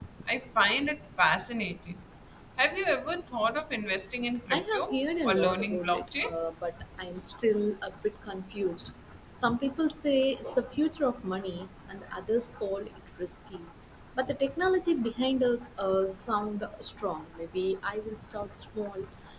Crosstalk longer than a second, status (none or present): present